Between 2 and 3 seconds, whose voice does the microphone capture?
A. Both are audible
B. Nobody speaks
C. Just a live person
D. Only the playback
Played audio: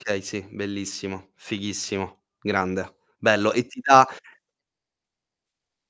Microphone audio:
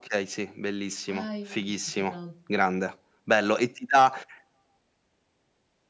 A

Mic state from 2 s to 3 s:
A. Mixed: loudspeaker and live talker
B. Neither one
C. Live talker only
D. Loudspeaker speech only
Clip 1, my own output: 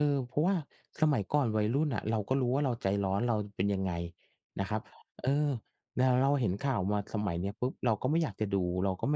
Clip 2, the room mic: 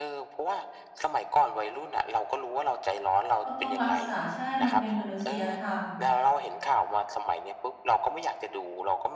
D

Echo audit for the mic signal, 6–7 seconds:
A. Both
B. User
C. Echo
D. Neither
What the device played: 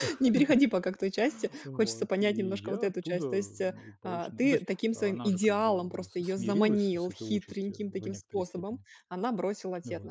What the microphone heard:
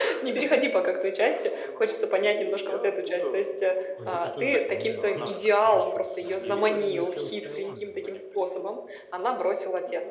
A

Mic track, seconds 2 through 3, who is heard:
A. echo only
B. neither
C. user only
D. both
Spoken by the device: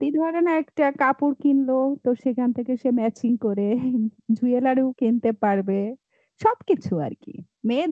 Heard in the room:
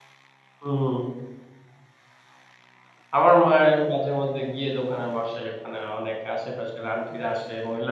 B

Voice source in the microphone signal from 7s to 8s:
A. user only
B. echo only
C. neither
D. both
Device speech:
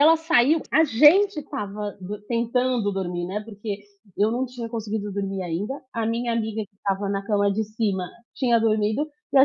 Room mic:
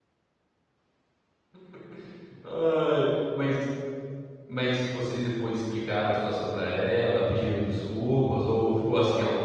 A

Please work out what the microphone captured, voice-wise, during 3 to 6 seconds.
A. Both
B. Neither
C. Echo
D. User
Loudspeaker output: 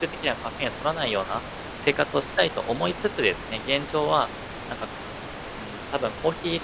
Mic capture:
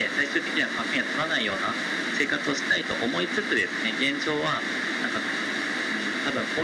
C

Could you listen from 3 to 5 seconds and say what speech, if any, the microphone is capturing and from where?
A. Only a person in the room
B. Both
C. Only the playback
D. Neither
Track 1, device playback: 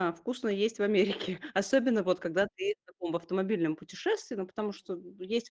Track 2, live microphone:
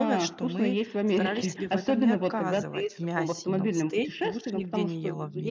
B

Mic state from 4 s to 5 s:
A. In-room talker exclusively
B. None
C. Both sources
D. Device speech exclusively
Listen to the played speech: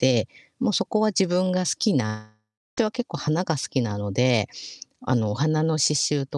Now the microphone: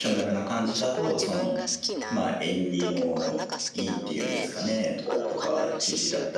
C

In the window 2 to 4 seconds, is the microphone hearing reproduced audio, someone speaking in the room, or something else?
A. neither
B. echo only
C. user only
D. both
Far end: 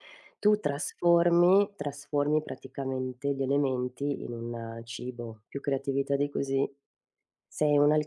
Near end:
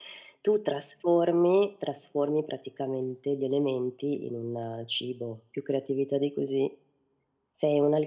B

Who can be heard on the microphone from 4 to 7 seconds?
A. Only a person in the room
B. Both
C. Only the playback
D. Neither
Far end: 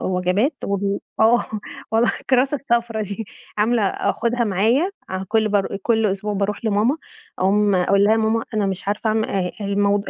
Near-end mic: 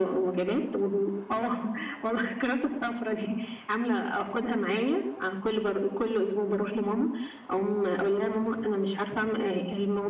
C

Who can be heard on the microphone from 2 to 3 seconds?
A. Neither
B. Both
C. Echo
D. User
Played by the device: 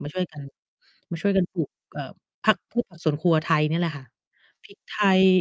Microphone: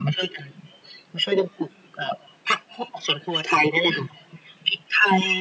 C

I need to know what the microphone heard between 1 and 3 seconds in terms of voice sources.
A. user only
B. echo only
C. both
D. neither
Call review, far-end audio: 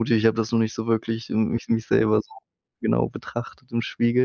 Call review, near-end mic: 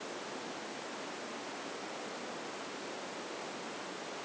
D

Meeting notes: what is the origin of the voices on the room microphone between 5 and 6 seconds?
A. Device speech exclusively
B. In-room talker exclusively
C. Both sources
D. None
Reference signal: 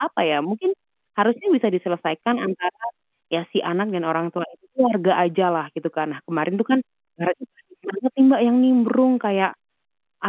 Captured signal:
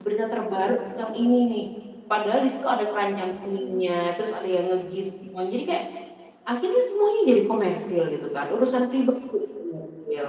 B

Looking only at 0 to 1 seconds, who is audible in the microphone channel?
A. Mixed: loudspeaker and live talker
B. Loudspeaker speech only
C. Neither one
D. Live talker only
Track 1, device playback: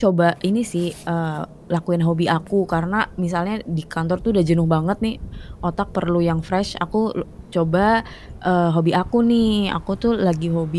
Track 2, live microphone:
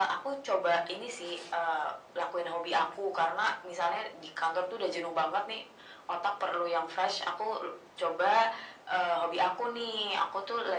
B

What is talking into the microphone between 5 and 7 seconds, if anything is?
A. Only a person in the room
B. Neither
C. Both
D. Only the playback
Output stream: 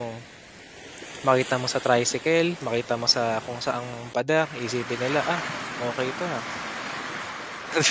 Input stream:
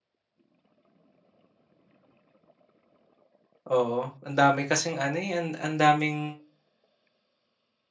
A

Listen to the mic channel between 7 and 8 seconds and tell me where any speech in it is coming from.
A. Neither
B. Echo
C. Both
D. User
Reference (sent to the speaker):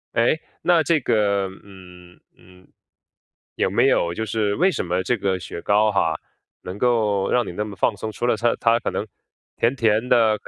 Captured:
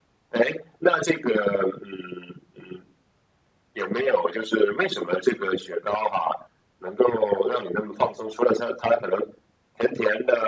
B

